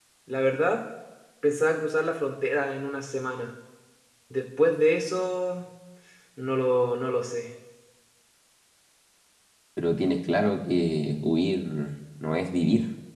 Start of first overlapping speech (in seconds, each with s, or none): none